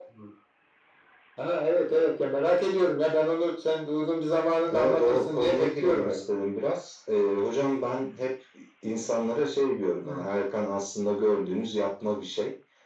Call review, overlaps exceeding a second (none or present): present